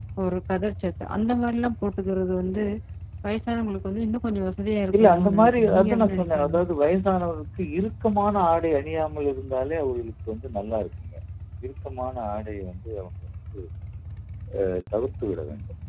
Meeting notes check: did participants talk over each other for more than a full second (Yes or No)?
Yes